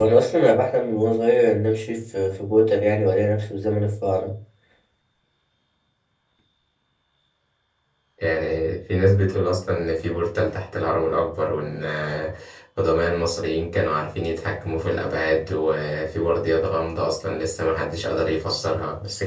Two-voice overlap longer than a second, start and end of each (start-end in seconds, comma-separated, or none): none